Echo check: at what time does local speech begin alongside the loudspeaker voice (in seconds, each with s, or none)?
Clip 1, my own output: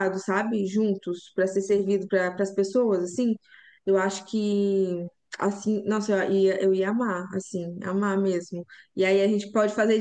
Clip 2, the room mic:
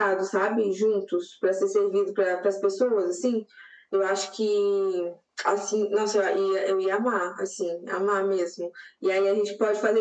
none